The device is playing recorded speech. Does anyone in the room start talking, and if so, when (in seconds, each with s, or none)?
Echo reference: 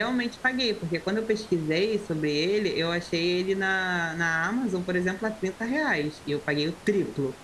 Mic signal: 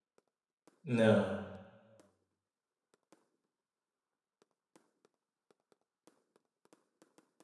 0.8 s